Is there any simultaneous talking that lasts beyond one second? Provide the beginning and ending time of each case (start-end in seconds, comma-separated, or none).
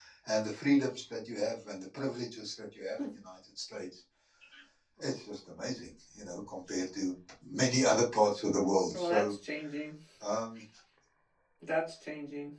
none